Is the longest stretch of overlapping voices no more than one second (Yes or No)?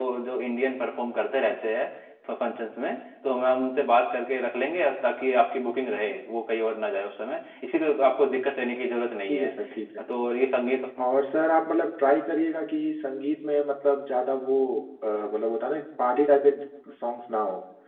Yes